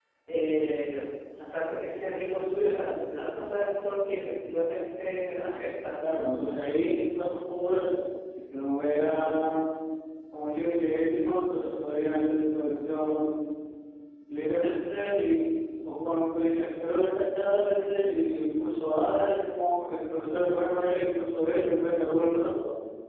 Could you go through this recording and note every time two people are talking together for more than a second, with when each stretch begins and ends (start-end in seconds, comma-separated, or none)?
none